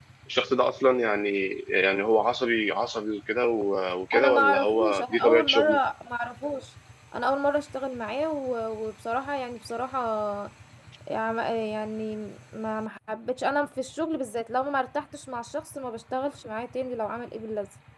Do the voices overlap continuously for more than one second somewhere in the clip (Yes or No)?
Yes